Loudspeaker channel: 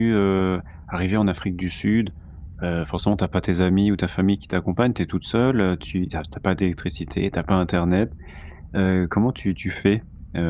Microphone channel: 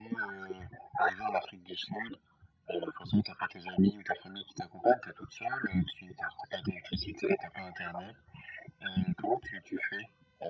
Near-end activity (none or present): none